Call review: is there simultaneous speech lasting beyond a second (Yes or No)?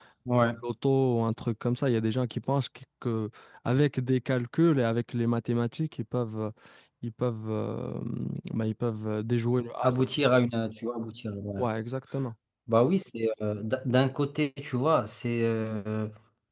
No